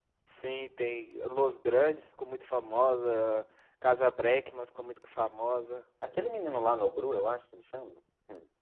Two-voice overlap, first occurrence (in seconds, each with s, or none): none